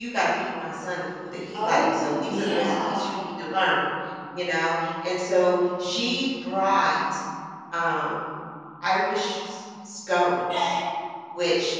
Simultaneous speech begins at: 1.5 s

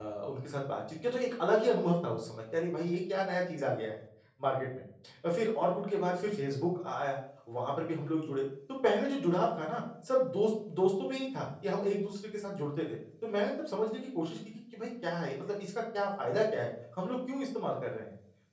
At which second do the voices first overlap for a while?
none

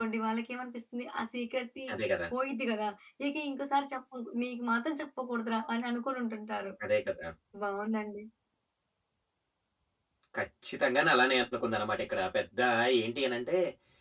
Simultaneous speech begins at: none

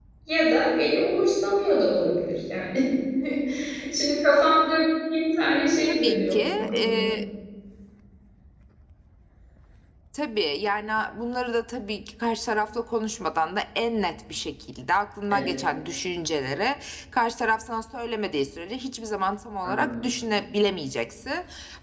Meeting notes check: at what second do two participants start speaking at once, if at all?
5.9 s

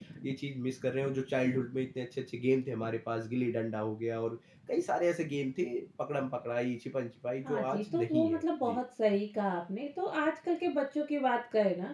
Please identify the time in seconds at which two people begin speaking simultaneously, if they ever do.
7.4 s

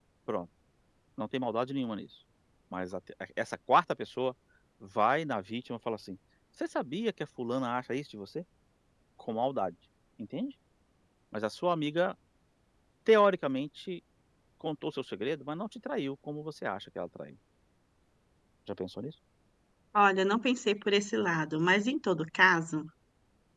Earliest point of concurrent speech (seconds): none

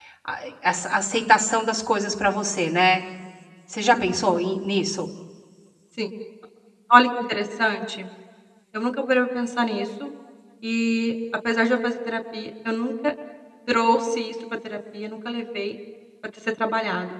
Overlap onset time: none

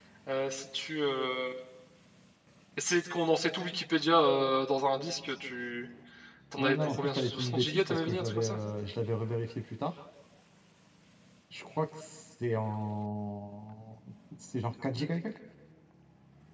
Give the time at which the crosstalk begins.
6.6 s

